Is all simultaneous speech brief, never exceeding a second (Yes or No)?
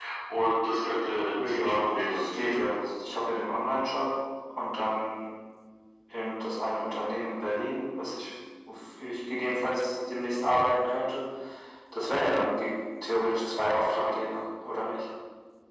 No